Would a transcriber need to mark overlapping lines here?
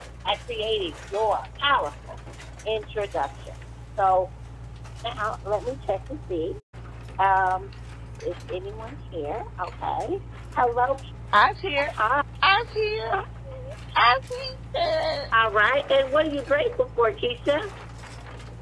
No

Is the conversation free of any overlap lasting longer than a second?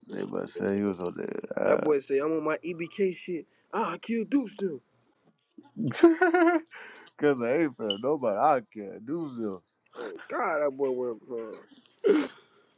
Yes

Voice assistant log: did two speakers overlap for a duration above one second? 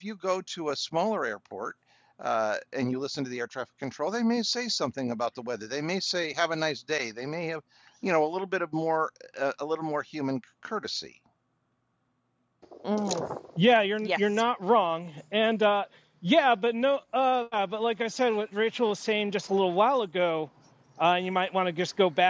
No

